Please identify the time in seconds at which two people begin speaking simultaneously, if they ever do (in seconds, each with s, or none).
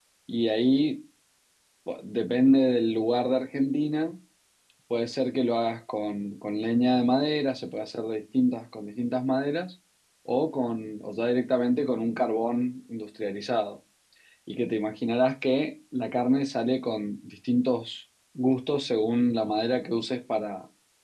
none